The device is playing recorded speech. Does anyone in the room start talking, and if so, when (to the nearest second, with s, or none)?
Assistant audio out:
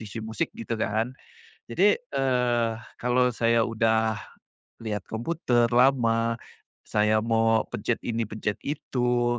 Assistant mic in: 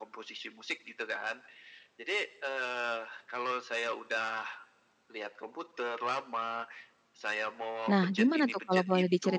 8 s